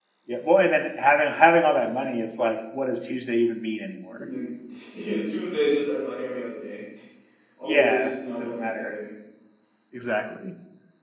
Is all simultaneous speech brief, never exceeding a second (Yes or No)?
No